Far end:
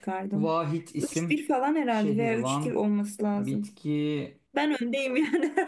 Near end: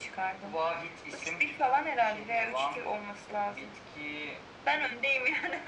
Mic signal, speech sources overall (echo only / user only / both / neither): echo only